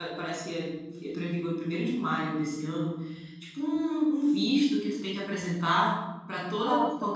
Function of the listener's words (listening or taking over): listening